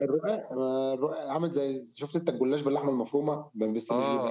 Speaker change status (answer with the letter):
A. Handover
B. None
A